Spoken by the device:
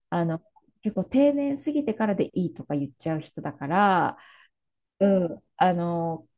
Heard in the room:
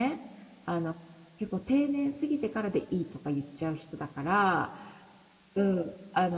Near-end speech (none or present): none